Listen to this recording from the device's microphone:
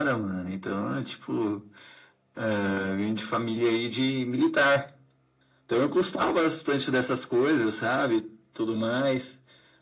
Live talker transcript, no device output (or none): none